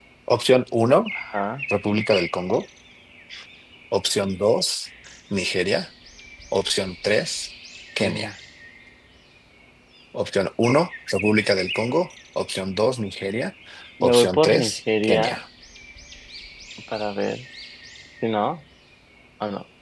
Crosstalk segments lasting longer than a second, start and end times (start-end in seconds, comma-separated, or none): 14.0-15.4